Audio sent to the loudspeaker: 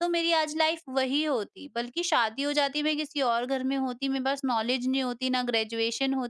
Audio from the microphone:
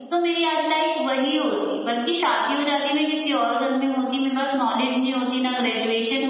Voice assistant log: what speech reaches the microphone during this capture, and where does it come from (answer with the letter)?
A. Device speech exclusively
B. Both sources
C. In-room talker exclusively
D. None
A